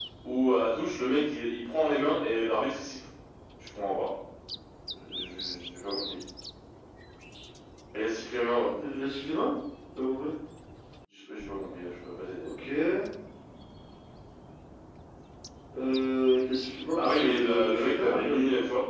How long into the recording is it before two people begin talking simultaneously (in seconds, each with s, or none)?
16.9 s